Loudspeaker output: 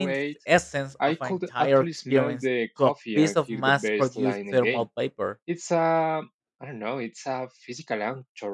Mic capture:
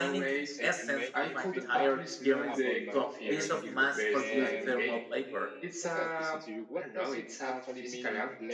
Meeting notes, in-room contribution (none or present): present